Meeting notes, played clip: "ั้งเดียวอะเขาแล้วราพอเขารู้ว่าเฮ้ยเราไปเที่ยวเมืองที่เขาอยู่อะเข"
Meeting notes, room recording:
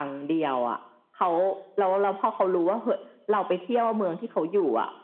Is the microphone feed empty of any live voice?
Yes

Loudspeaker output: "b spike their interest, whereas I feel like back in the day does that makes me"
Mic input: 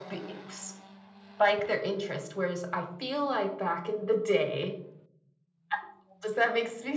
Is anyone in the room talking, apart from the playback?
No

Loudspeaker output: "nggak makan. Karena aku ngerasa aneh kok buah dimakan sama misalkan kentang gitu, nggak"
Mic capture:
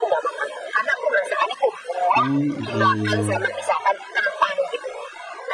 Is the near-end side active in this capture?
Yes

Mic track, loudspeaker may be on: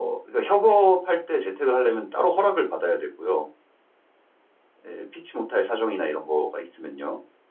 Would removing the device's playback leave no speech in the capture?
Yes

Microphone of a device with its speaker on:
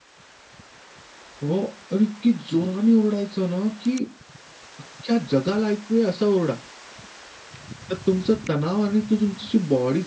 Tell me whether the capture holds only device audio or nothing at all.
Yes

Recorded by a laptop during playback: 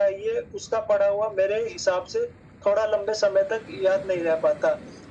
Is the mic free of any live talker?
Yes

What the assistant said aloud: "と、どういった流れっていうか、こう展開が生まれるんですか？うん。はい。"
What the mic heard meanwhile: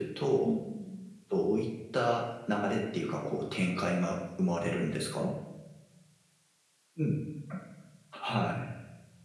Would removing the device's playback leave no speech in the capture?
No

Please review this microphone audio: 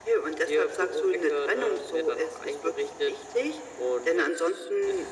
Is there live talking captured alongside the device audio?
No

